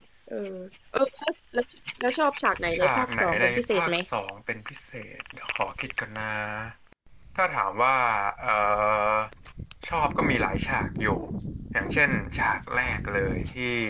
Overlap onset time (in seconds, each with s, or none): 2.8 s